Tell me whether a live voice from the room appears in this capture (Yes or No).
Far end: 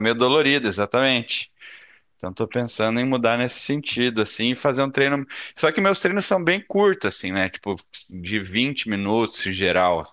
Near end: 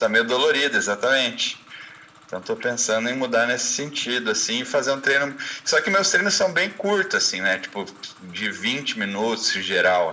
No